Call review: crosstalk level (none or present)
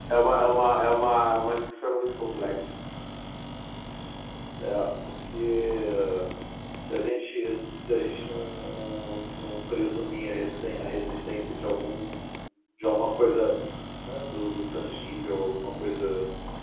none